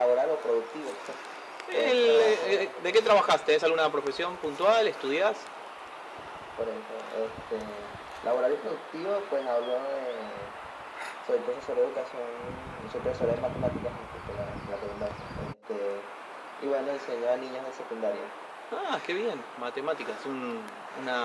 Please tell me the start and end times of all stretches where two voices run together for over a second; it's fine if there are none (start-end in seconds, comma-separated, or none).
1.7-3.1